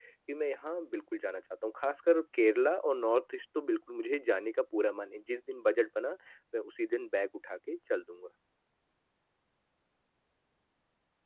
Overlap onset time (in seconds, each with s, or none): none